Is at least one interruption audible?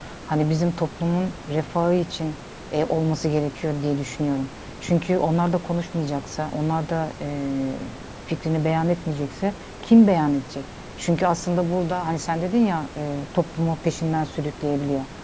No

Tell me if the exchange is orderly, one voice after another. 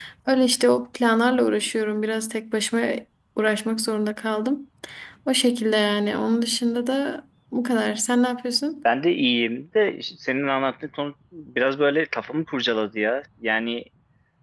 Yes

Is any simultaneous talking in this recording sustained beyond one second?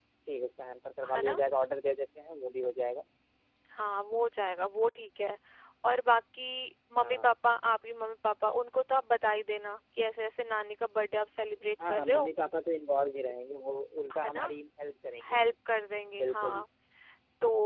No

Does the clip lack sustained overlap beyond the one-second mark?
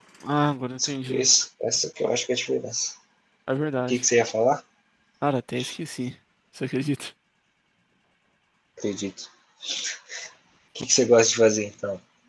Yes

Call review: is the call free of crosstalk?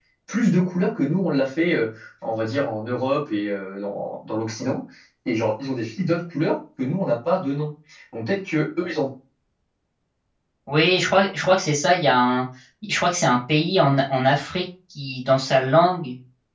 Yes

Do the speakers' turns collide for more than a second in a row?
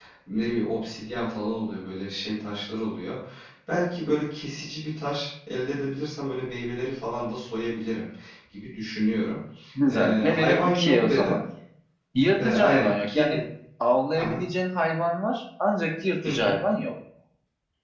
Yes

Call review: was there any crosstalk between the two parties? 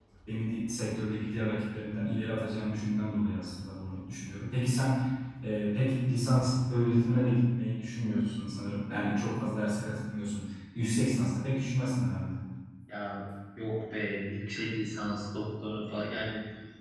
No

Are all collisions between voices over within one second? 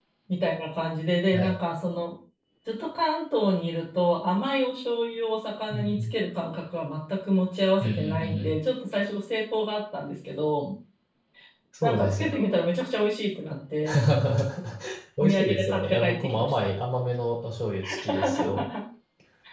No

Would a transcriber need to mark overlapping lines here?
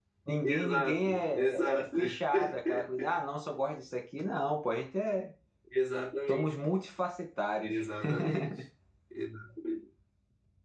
Yes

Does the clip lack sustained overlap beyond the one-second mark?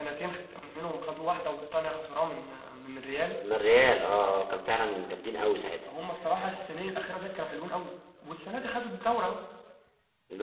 Yes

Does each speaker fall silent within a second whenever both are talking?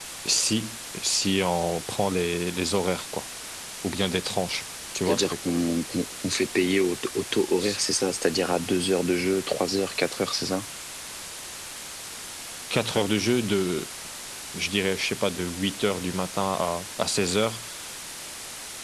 Yes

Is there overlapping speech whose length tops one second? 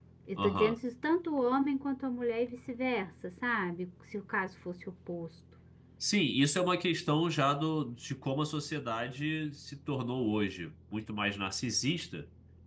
No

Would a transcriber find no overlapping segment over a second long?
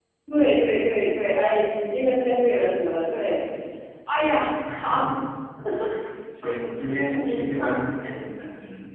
No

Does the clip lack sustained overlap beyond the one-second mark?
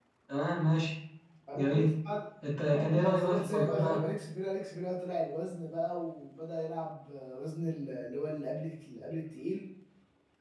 No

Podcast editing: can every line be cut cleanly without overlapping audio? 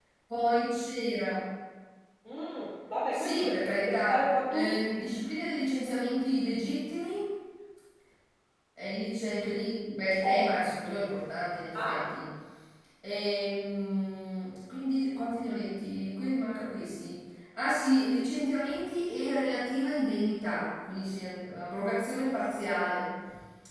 No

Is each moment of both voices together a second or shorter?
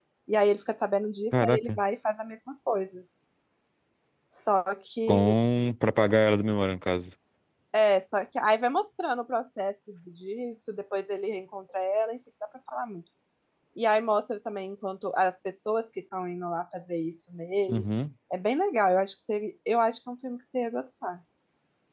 Yes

